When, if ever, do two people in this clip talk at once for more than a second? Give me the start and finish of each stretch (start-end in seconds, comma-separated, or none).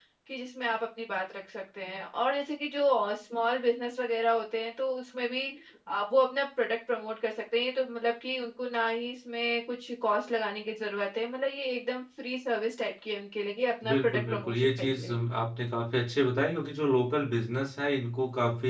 13.9-15.2